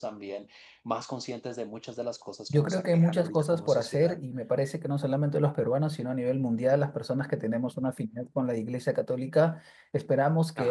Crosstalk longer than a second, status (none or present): present